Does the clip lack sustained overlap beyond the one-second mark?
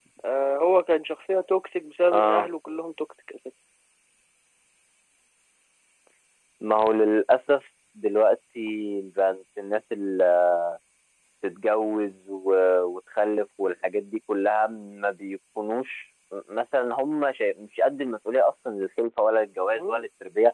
Yes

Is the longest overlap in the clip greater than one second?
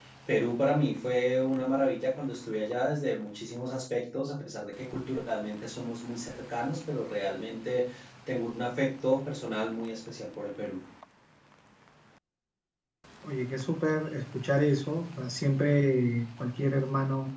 No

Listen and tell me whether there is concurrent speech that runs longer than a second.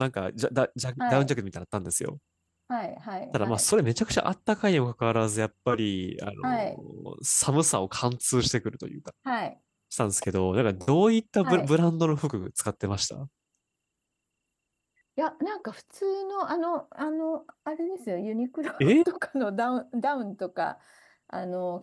No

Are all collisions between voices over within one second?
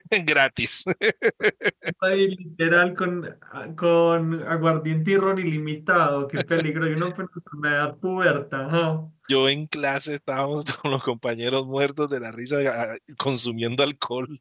Yes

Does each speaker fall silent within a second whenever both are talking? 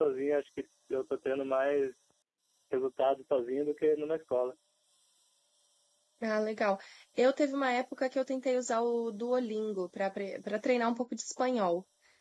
Yes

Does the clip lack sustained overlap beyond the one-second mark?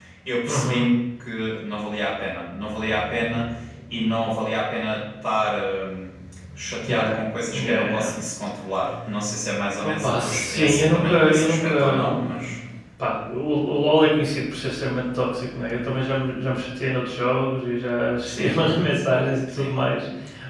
No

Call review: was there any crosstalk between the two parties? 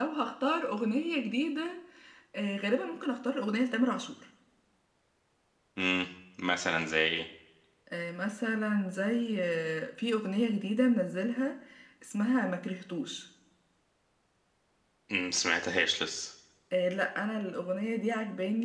No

